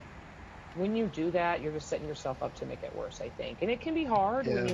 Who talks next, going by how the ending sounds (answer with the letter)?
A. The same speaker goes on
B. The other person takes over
A